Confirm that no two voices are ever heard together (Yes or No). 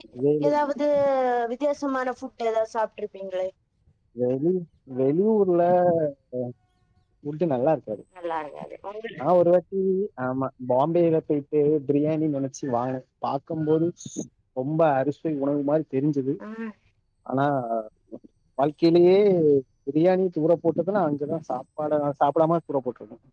Yes